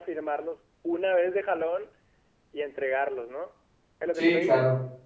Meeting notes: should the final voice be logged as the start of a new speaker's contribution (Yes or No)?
Yes